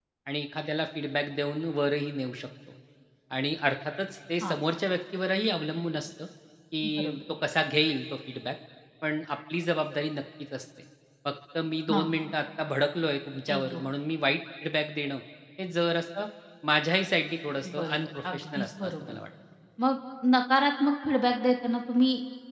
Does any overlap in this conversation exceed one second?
Yes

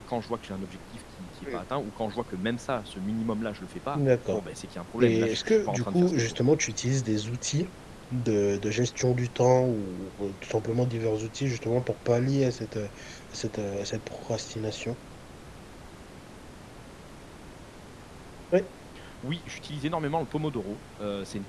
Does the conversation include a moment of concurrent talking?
Yes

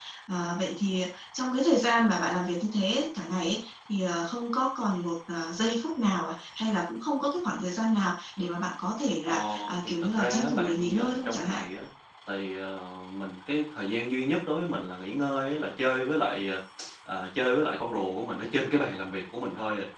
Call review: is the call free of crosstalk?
No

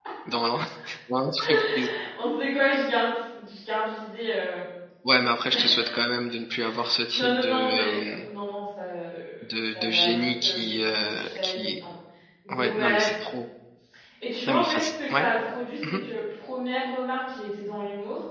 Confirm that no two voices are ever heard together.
No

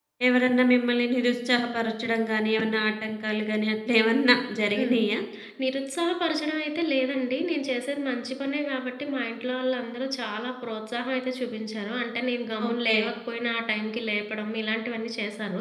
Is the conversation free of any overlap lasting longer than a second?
Yes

